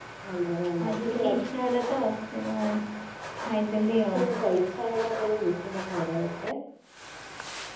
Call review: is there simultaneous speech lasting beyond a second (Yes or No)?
No